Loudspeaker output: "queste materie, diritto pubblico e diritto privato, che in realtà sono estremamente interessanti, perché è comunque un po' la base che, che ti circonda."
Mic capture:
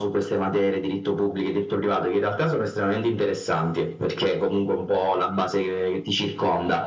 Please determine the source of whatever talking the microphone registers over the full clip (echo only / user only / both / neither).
echo only